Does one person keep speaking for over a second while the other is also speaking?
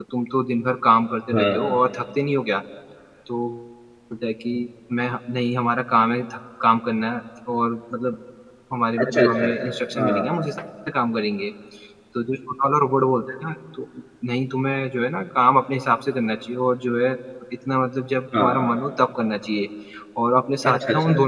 No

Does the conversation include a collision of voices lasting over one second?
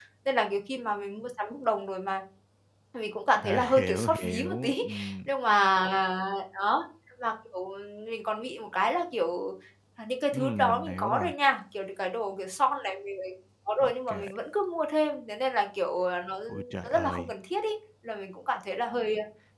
Yes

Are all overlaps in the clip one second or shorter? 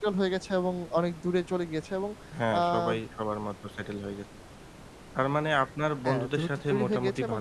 No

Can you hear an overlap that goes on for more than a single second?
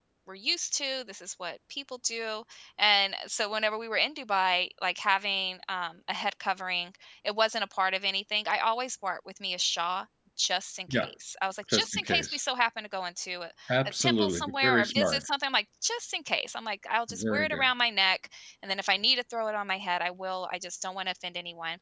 Yes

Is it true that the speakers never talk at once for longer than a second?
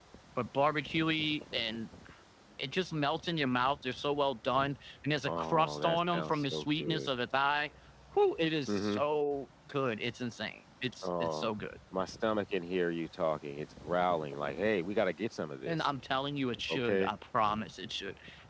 No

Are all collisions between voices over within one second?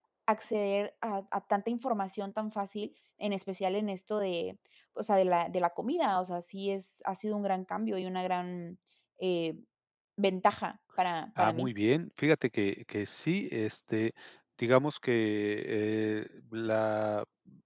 Yes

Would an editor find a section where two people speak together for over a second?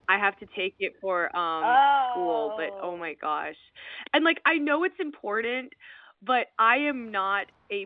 Yes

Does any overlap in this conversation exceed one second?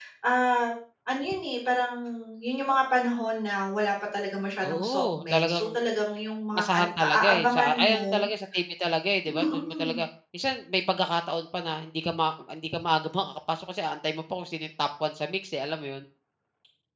Yes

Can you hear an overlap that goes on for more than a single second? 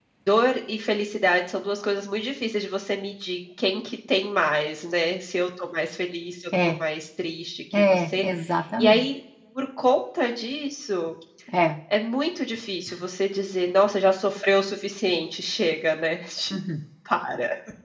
No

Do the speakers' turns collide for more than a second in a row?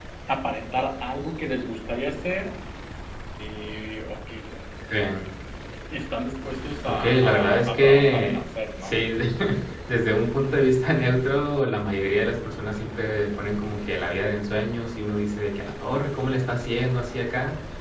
Yes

